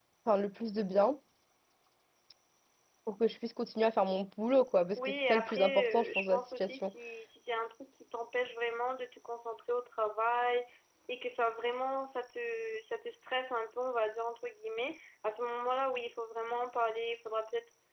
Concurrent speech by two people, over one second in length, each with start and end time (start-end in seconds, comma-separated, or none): 5.0-6.9